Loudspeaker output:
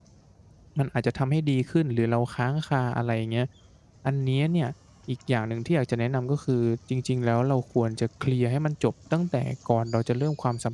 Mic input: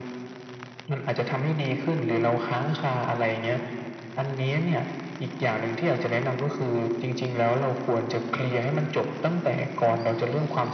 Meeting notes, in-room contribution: none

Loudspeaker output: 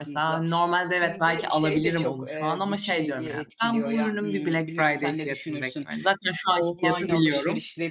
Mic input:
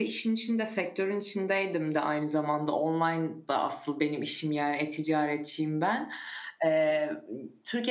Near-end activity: present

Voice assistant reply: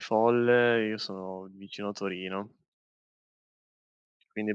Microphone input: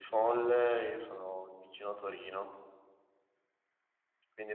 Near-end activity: none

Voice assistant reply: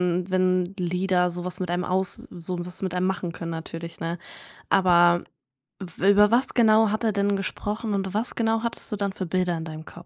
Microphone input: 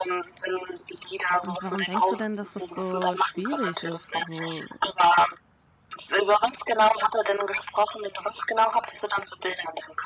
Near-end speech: present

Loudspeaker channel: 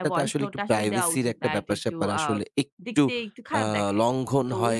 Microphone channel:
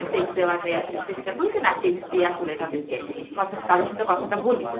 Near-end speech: present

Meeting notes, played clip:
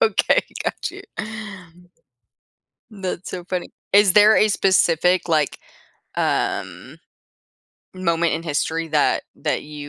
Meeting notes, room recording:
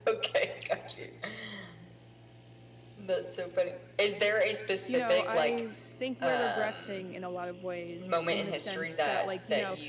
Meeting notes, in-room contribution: present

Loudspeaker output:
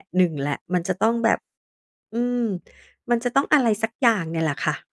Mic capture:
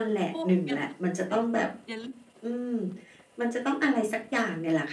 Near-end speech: present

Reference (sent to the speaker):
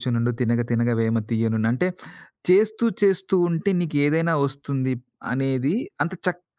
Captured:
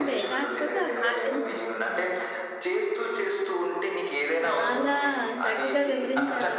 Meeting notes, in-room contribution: present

